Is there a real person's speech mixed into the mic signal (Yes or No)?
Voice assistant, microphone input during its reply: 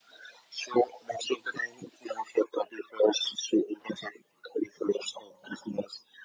No